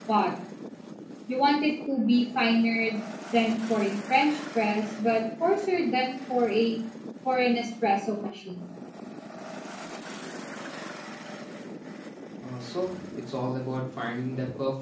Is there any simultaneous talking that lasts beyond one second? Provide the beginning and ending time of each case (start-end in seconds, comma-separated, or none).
none